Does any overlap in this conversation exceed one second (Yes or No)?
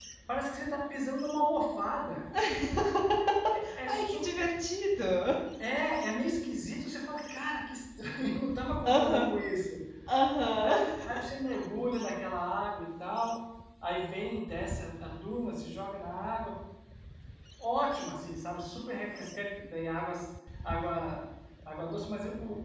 No